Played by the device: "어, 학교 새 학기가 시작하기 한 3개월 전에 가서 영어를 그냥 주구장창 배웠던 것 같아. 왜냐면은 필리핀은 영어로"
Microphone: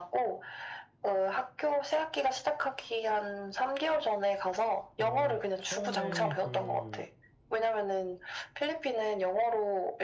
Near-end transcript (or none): 어, 처음에 그,